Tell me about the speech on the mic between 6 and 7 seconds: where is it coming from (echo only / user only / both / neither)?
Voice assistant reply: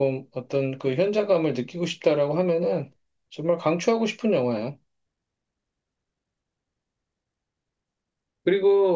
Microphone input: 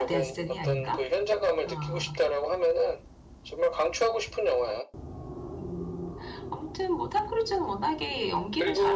user only